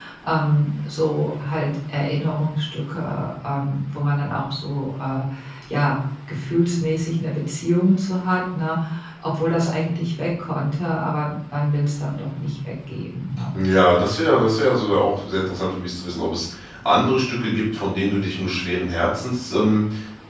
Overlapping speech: No

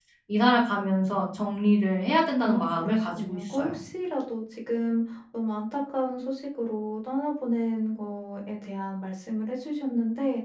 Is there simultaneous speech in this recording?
Yes, from 2.4 s

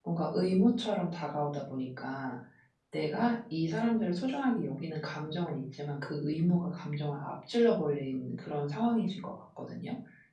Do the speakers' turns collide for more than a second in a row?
No

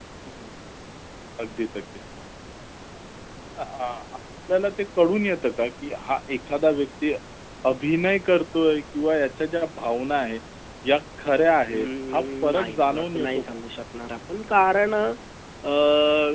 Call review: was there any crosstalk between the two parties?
Yes, from 11.7 s

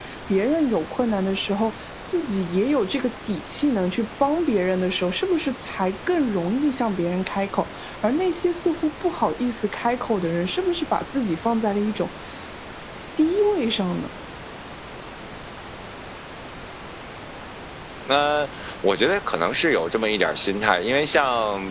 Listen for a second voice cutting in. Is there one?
No

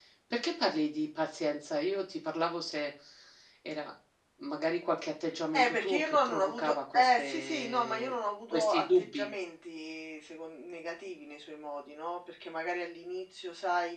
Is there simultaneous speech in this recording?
Yes, from 5.5 s

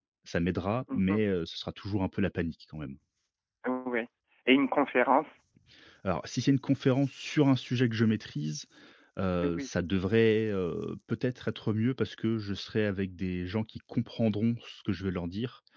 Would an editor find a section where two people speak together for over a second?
No

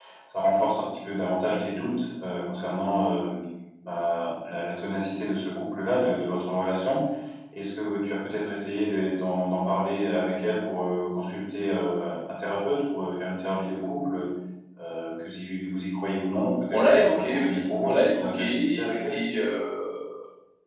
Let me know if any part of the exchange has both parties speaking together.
Yes, from 16.7 s

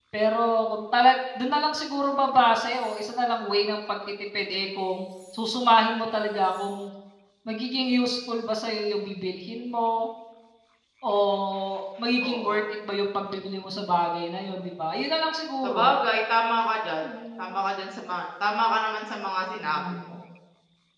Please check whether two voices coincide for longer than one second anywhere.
No

